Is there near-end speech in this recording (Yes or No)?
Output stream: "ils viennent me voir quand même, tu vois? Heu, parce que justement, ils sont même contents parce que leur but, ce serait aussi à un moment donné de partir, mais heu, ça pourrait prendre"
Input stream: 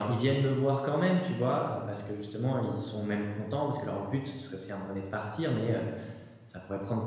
No